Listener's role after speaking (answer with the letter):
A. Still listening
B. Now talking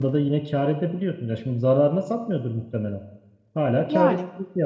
A